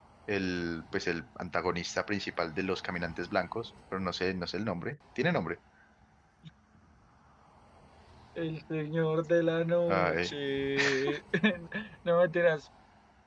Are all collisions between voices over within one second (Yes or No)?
Yes